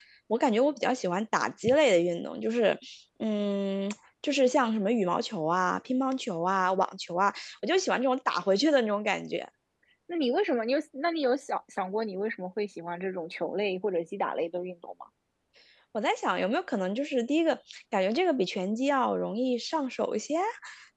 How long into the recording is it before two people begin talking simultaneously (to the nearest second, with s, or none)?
none